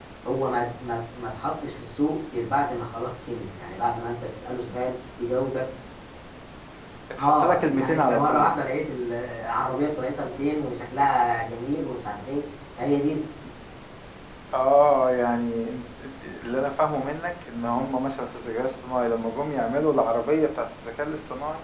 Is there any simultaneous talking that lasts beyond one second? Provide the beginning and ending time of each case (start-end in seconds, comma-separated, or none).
7.2-8.6